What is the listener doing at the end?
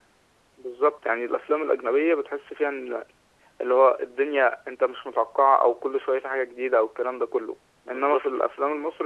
listening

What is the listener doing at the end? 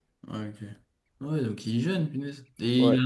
taking over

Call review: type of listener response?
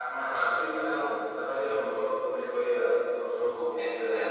taking over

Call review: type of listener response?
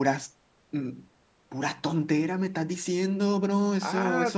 taking over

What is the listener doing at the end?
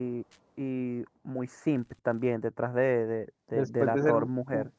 taking over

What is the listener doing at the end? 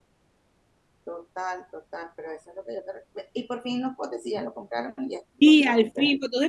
taking over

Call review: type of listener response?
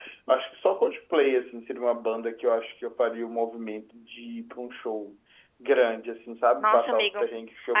taking over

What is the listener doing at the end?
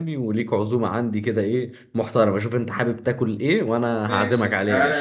taking over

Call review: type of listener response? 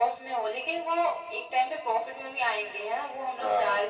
listening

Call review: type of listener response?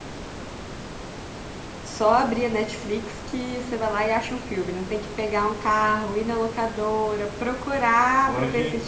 listening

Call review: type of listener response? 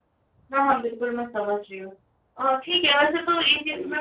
listening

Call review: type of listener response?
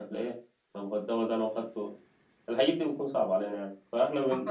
listening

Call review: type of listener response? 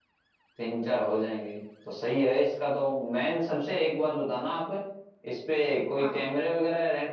listening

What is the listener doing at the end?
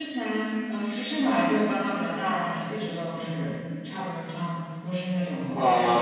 taking over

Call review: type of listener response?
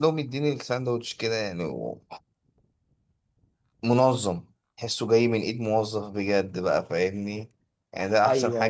listening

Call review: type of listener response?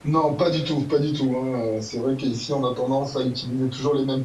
listening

